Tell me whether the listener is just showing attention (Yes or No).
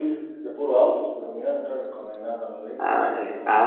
No